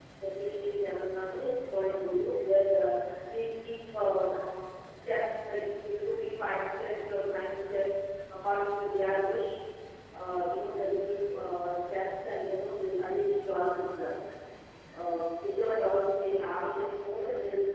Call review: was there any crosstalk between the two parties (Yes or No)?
No